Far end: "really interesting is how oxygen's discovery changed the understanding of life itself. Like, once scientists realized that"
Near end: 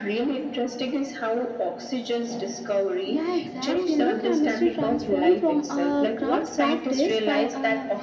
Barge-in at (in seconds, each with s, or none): 3.1 s